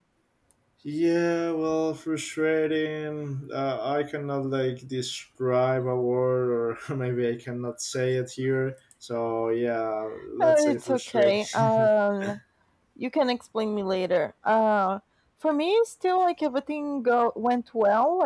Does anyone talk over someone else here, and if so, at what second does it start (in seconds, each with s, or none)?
10.4 s